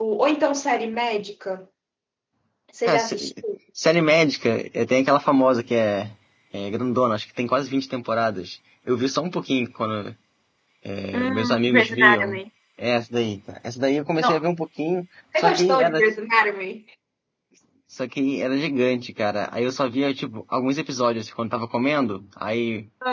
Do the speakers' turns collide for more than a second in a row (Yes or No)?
Yes